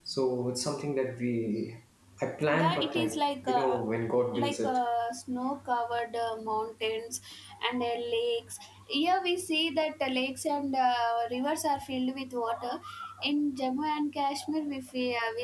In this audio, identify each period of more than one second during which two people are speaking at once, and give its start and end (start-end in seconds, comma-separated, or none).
2.5-3.8